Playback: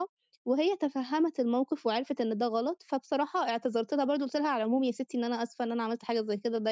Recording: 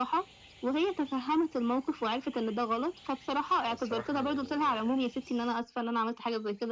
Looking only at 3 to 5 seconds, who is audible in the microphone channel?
both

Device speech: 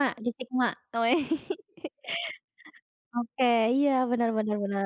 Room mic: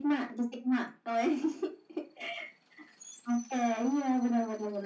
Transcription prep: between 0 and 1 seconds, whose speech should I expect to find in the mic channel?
echo only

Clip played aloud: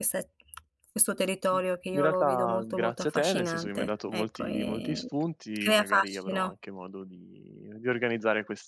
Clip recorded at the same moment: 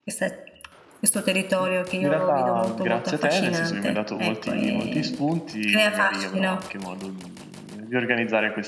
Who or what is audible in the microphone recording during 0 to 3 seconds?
echo only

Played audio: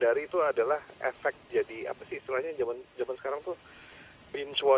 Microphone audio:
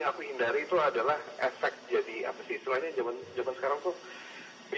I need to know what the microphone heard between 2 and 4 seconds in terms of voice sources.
echo only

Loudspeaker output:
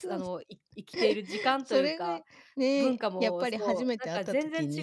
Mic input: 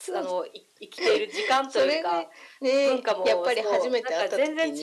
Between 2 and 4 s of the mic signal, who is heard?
echo only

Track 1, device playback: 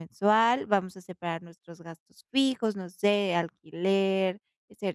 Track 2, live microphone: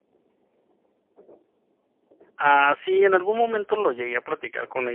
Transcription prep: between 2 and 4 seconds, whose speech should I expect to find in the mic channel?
user only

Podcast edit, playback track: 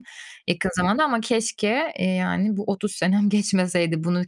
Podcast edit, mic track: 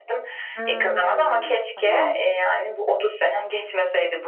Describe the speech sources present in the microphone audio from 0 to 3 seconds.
both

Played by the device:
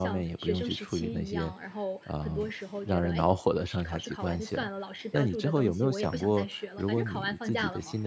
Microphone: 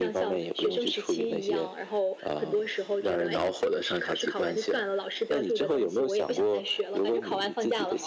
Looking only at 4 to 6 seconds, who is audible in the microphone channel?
echo only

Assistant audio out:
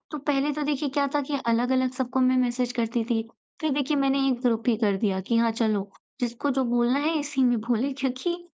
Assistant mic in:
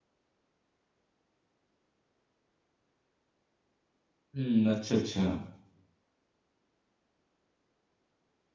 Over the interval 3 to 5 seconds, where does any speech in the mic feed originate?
user only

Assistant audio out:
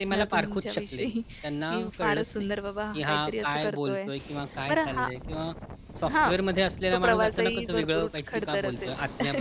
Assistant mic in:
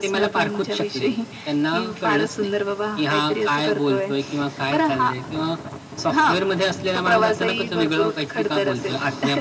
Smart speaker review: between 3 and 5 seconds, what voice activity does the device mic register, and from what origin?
echo only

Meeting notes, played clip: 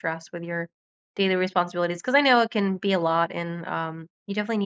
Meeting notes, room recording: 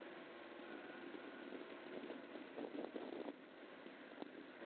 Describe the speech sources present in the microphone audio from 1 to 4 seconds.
neither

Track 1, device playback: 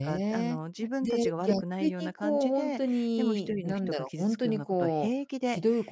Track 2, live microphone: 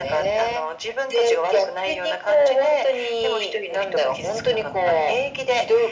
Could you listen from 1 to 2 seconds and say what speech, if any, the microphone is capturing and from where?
echo only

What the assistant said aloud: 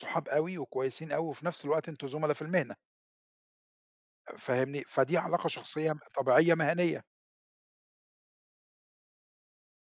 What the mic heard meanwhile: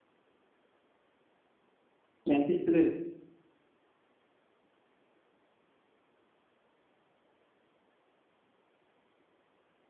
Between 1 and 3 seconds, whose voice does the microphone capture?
user only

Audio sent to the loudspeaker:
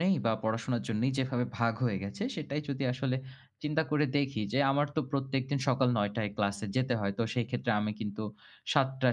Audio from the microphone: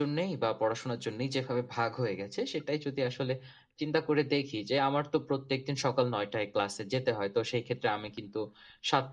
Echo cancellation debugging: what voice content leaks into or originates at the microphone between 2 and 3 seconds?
echo only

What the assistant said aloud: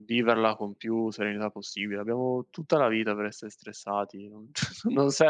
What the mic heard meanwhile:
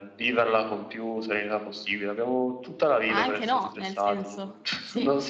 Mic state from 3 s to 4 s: both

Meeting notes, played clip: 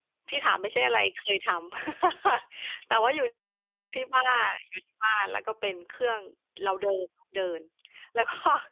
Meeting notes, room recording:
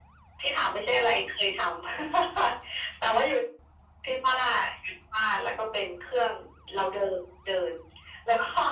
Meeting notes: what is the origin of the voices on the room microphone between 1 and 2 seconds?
echo only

